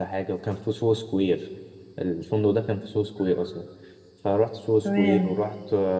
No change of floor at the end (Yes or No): Yes